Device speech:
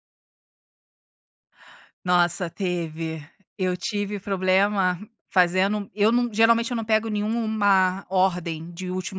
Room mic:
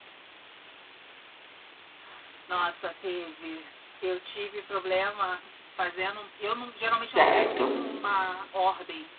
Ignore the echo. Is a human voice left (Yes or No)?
Yes